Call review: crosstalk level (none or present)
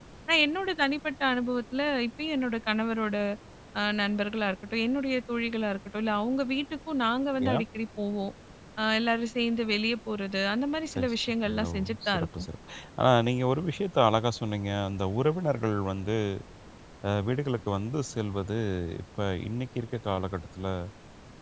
present